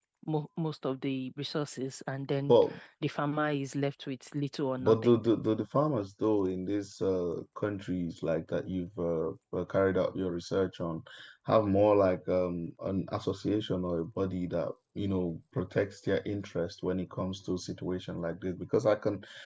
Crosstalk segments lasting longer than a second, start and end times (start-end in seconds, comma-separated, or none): none